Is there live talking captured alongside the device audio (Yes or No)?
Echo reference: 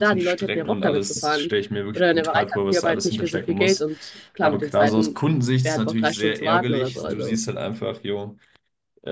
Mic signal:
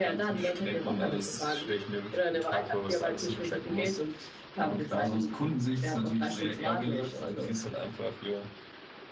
No